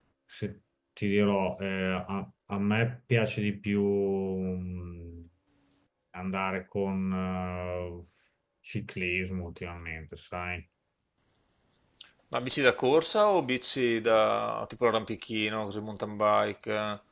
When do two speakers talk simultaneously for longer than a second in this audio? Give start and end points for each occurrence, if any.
none

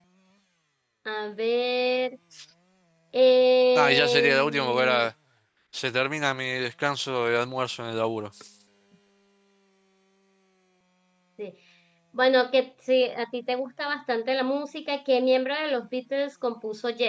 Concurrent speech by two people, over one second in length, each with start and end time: 3.8-5.1

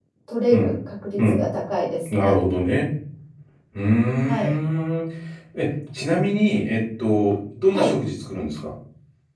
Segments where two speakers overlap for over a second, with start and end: none

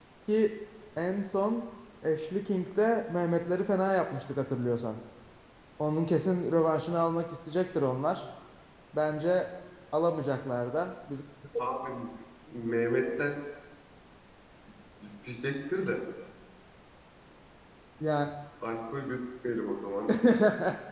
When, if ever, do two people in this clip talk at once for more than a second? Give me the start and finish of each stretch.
none

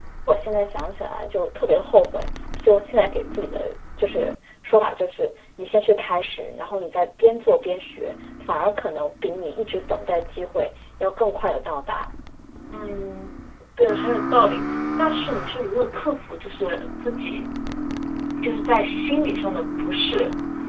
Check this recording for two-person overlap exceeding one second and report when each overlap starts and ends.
none

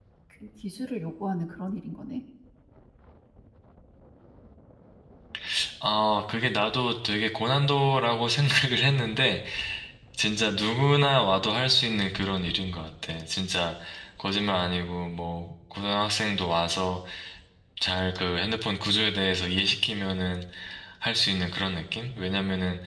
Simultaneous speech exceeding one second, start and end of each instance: none

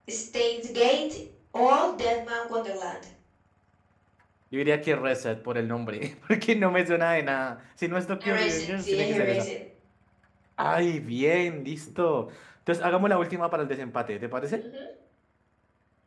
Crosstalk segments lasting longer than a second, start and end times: 8.2-9.5

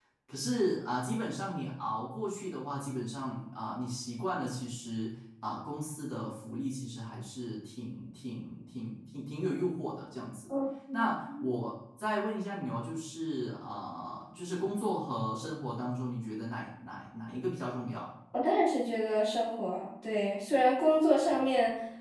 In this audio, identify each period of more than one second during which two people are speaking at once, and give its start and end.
none

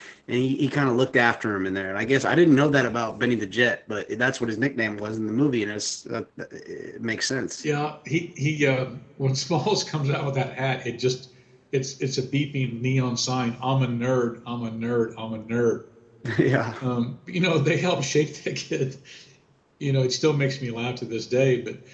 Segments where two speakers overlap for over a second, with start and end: none

